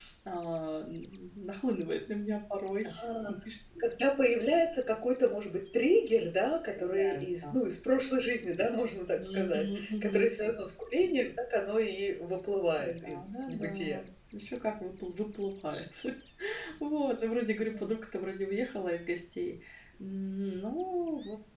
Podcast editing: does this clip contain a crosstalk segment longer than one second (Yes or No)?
Yes